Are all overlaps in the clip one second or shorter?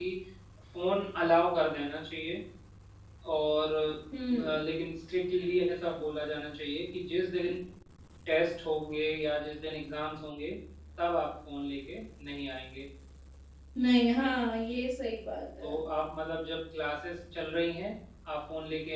Yes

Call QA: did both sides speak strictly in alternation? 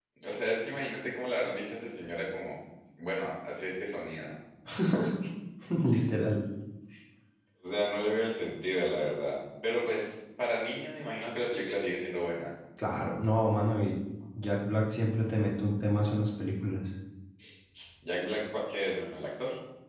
Yes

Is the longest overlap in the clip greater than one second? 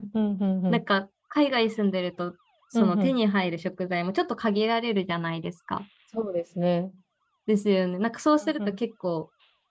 No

